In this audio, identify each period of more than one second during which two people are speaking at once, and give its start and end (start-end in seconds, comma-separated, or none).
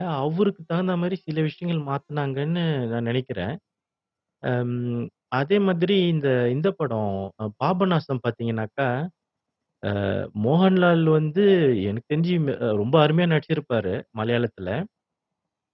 none